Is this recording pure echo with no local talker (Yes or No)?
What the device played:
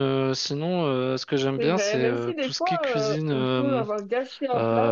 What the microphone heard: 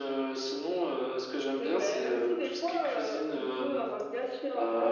Yes